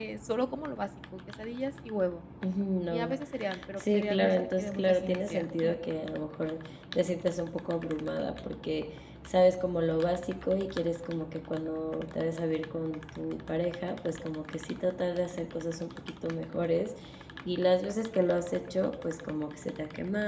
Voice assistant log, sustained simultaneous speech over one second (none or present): present